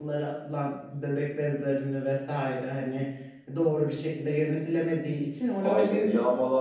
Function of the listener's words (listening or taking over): taking over